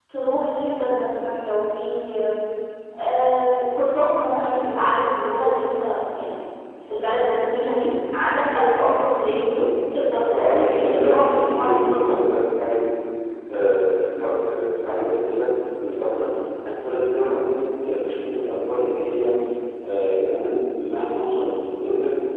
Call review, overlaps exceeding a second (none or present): present